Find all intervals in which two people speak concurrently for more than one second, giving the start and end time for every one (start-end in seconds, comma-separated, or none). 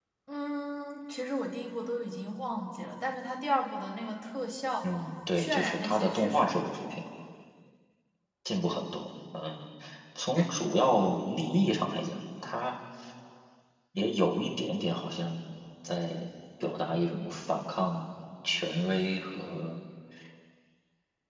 5.3-6.9